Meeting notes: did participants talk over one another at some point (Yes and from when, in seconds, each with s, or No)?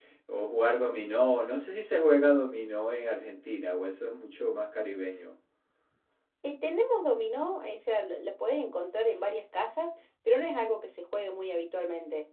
No